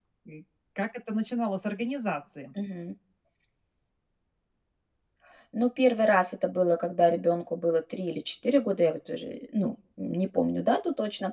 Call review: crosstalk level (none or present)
none